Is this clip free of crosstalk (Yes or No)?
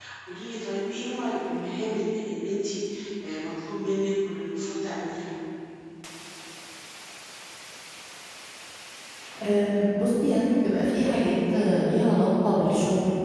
Yes